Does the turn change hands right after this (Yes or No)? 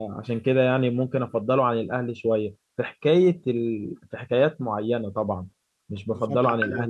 Yes